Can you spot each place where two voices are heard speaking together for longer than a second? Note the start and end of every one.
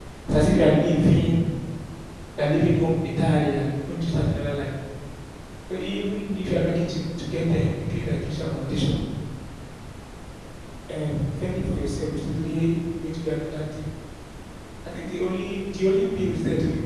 none

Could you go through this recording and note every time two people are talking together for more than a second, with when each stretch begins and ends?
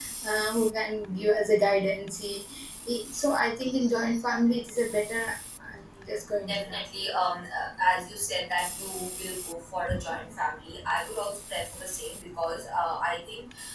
none

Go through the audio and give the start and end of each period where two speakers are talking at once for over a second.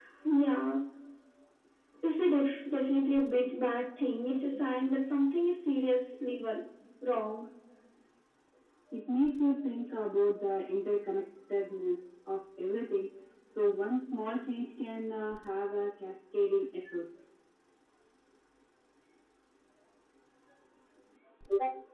none

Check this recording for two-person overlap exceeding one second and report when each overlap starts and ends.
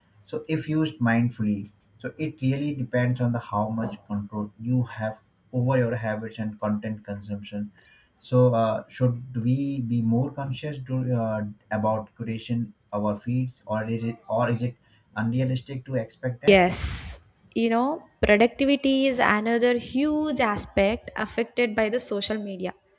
none

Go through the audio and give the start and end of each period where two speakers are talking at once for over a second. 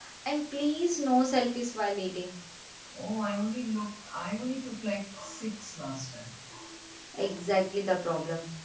none

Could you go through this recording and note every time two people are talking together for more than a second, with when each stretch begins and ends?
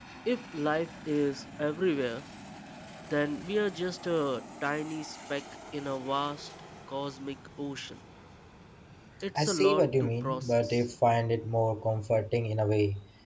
9.3-10.8

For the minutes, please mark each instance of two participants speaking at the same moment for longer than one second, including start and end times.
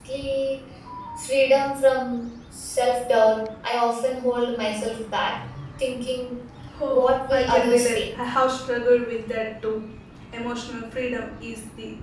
6.9-8.2

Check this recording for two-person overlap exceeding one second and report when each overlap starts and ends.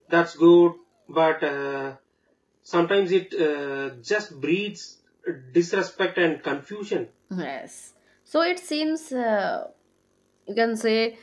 none

